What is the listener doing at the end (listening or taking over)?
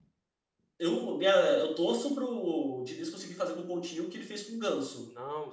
taking over